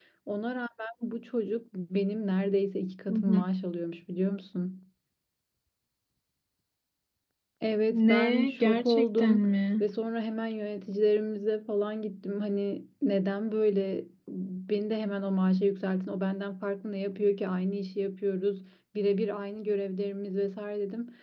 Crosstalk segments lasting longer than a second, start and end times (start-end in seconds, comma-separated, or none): 7.9-9.4